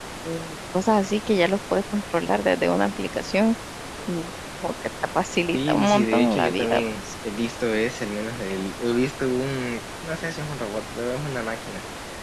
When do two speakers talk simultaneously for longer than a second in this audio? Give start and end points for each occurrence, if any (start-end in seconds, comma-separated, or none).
5.5-7.0